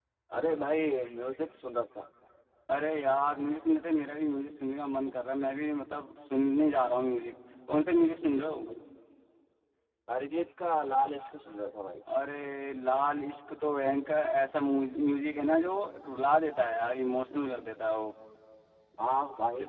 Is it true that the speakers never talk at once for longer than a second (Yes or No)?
Yes